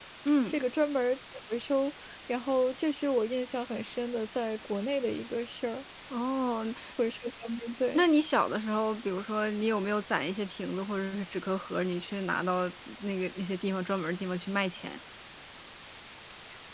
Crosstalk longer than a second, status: none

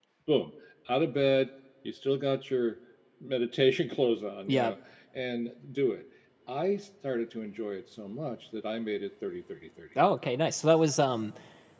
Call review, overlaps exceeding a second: none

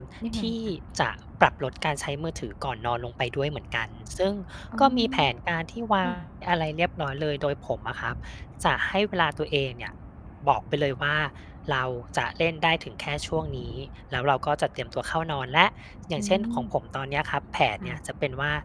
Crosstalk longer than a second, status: none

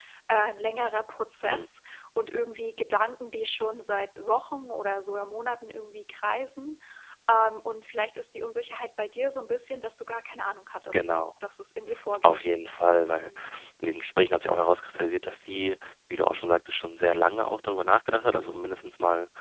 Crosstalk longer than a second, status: none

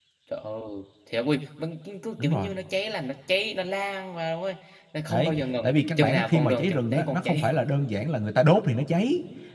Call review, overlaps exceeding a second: present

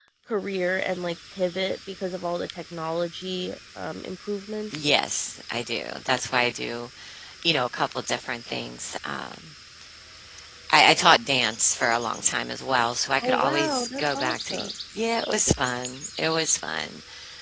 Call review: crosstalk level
present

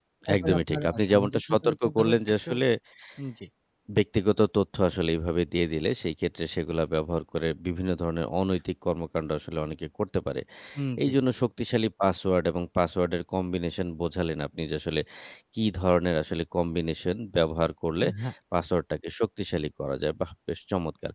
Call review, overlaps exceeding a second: present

